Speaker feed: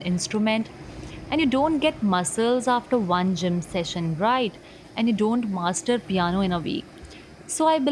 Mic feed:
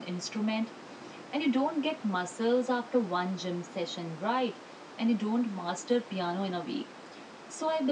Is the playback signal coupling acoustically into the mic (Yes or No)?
Yes